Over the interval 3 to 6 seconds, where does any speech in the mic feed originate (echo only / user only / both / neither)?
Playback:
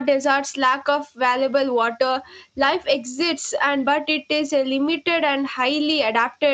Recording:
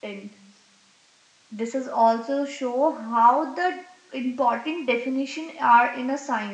user only